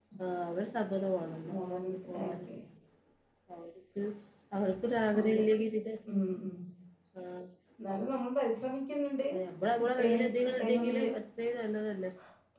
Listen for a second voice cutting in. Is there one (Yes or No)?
Yes